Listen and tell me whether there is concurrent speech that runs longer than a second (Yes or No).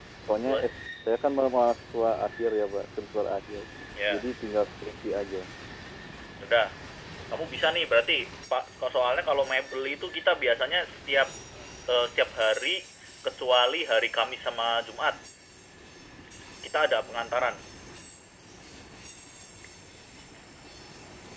No